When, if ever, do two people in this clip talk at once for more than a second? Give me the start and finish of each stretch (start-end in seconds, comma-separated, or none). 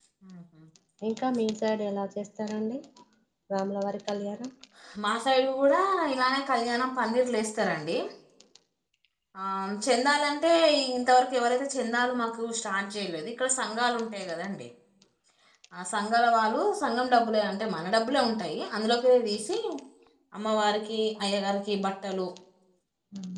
none